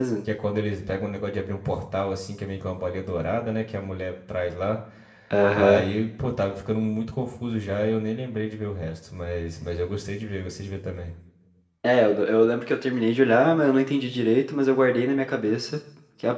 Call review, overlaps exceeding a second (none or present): none